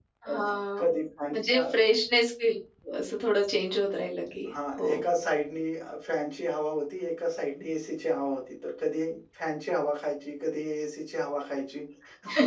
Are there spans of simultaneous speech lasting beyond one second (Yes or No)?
No